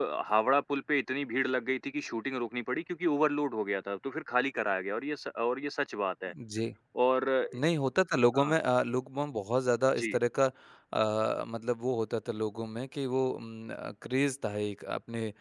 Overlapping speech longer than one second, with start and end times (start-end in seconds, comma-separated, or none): none